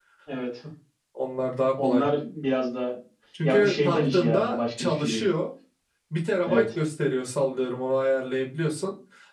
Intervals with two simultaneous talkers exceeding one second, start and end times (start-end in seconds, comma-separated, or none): 3.4-5.2